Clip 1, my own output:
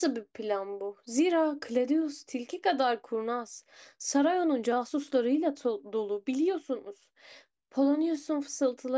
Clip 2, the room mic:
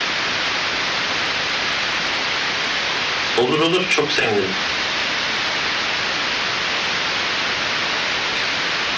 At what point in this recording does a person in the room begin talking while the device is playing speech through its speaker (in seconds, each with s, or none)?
3.4 s